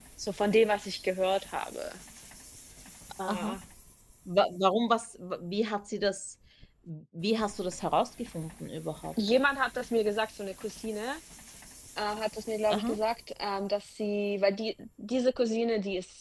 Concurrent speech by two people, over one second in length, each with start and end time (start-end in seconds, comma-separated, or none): none